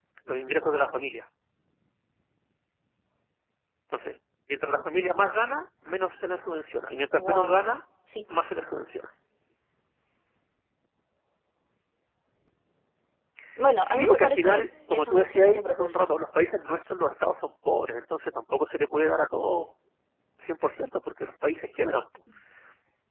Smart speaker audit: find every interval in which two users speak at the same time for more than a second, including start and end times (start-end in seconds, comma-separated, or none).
13.8-16.1